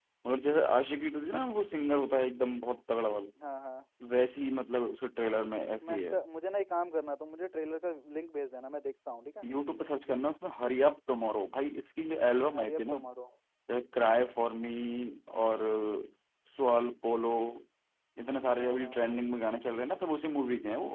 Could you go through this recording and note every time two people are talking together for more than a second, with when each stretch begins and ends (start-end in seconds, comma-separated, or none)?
none